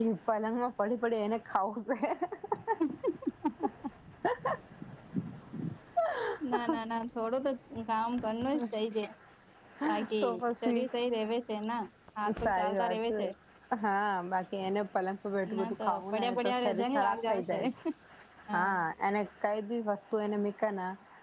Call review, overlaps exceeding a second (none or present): present